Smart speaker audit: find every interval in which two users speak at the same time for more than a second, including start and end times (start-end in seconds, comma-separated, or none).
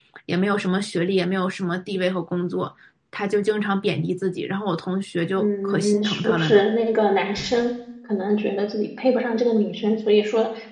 5.4-6.6